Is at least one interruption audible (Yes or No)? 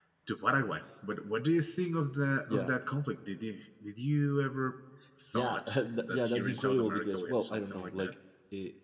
Yes